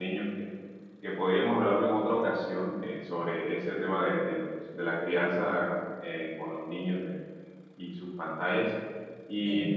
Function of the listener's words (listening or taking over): listening